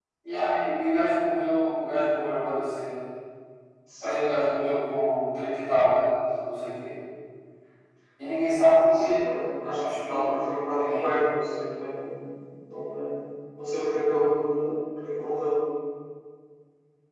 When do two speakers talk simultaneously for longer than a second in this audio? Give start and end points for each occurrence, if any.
none

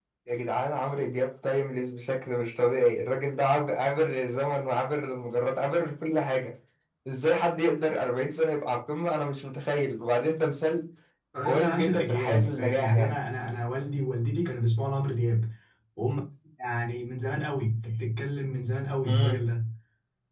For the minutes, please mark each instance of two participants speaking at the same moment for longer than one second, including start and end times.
11.4-12.9

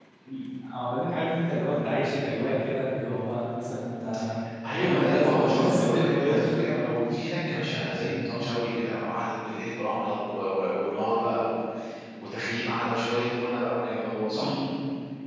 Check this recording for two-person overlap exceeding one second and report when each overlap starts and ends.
4.8-6.4

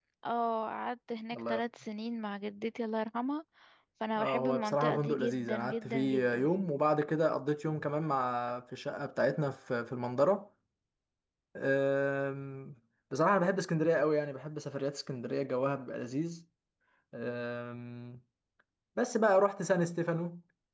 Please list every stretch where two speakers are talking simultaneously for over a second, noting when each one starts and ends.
4.2-6.5

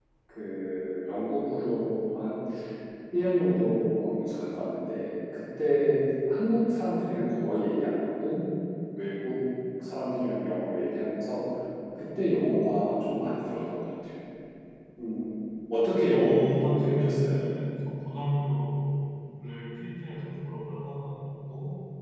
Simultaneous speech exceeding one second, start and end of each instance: 16.1-17.4

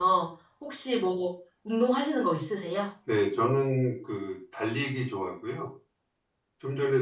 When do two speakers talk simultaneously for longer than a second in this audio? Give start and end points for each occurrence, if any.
none

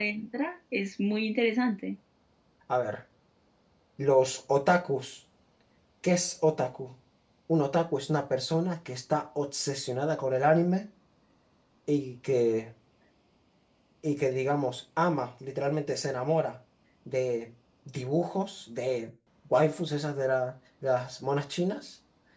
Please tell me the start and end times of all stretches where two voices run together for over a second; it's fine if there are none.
none

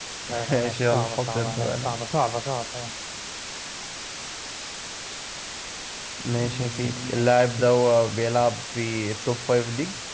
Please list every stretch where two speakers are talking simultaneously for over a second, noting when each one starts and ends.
0.5-2.0, 6.4-7.7

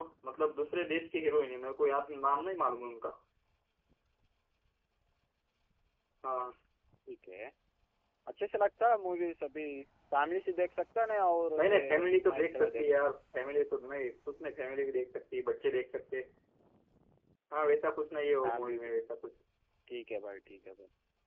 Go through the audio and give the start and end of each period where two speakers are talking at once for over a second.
11.6-12.8

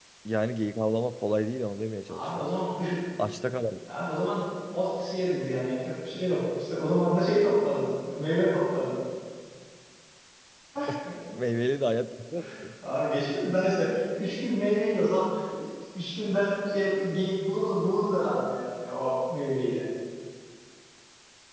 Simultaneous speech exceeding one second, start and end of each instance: none

